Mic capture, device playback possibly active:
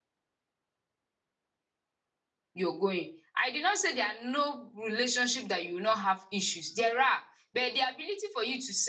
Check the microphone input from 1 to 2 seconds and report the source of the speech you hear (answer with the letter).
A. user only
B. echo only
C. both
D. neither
D